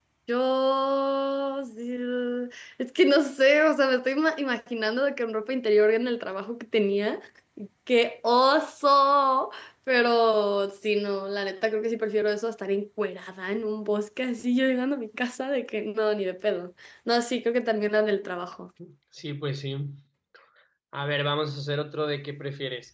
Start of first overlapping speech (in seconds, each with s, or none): none